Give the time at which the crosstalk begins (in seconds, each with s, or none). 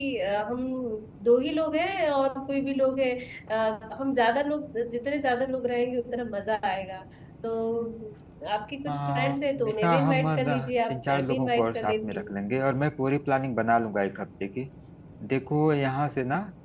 8.9 s